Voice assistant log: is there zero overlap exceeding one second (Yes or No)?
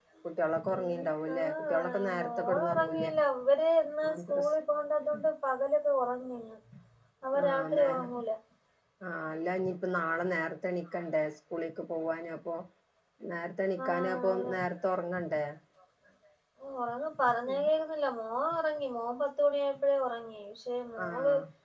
No